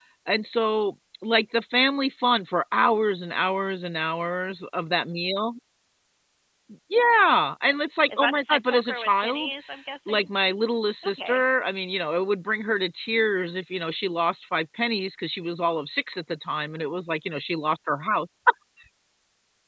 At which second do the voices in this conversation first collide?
8.1 s

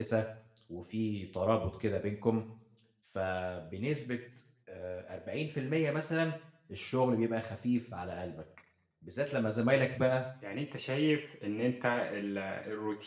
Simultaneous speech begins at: none

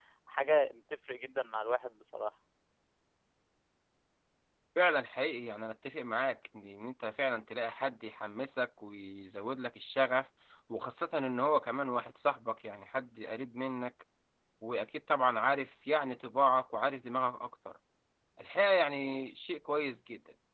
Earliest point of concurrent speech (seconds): none

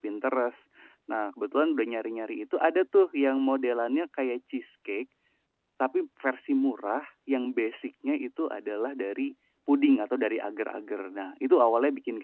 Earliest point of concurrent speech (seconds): none

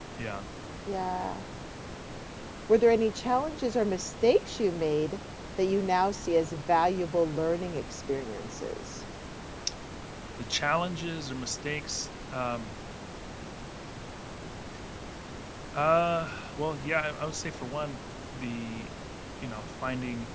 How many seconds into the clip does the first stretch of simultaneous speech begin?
none

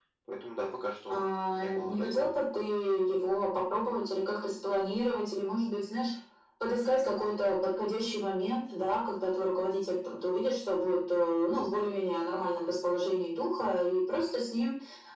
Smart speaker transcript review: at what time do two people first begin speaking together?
1.1 s

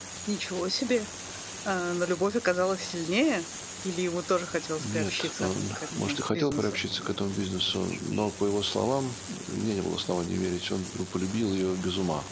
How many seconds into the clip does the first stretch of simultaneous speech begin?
4.8 s

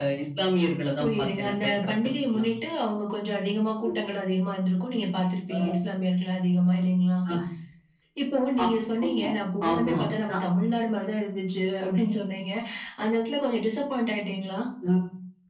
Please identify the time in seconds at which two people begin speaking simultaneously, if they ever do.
1.0 s

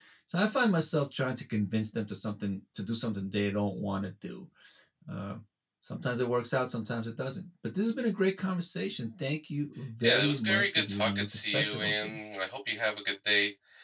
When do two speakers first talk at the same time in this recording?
10.0 s

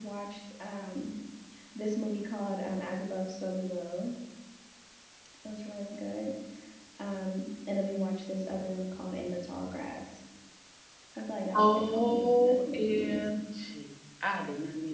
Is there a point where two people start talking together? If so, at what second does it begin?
11.6 s

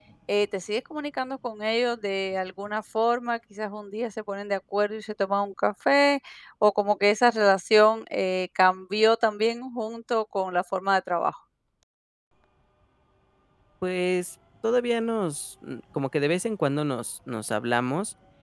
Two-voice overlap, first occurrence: none

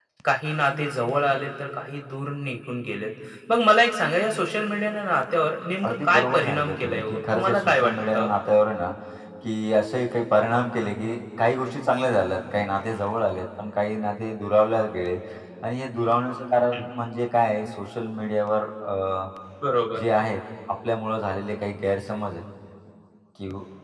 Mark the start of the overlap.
5.8 s

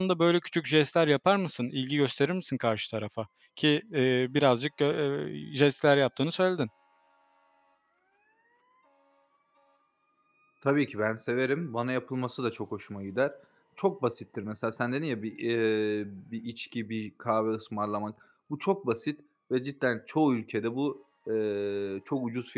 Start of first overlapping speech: none

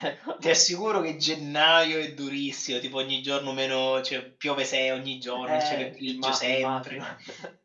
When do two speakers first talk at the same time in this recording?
5.5 s

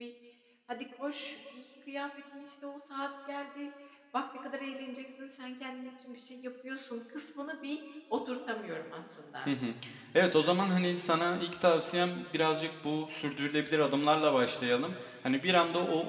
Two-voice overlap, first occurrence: none

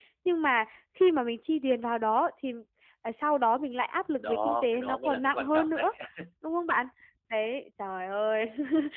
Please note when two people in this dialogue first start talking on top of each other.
4.2 s

